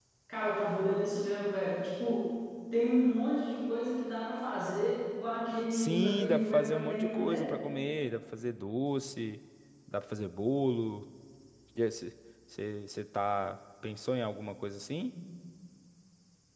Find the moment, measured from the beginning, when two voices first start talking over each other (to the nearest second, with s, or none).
6 s